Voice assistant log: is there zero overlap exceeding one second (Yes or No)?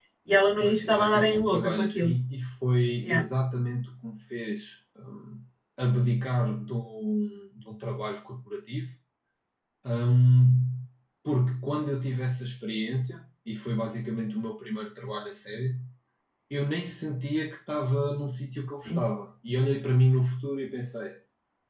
No